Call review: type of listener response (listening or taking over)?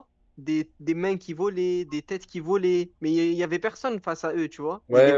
taking over